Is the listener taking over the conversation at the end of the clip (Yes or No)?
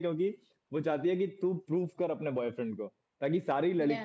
No